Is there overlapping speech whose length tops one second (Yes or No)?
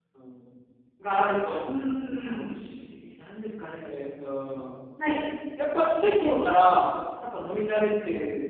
No